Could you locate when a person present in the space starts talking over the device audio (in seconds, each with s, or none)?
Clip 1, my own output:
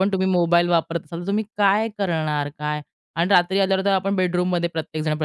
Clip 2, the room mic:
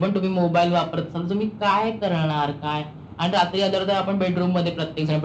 none